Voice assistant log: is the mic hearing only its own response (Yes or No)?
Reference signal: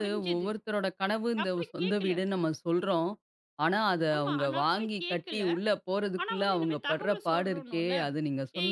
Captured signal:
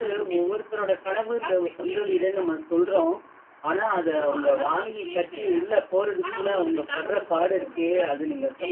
Yes